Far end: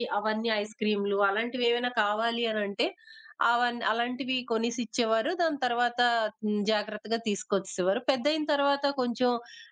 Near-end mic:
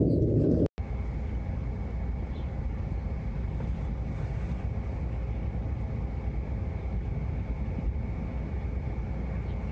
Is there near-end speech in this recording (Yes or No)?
No